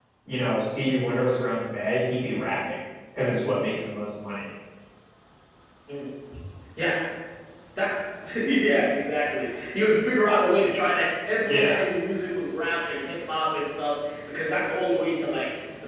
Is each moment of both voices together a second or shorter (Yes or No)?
Yes